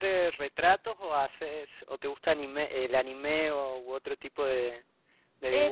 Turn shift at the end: Yes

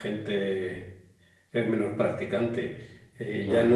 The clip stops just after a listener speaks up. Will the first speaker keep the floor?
Yes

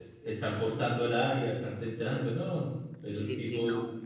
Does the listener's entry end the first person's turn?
Yes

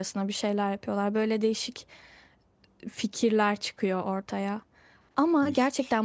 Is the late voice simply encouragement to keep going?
Yes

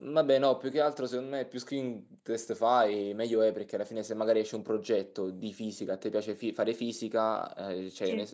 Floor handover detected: No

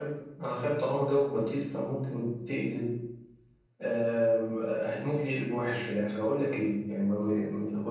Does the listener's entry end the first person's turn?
No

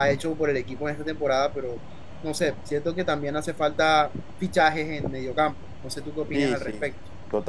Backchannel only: No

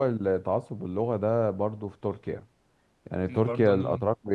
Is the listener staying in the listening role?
Yes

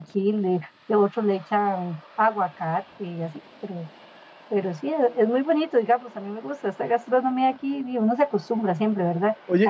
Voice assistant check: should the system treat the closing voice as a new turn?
Yes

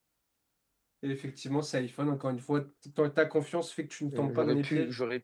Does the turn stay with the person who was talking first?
No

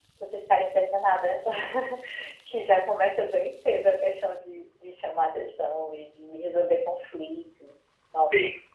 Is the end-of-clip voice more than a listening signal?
Yes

